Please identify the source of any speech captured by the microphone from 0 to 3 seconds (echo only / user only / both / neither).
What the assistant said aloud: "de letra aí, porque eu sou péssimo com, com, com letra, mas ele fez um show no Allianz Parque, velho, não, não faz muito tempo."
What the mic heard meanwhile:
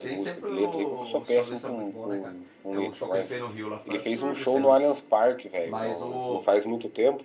both